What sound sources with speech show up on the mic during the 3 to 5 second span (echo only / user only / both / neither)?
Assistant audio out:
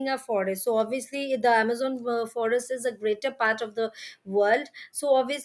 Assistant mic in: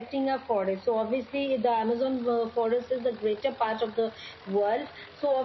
echo only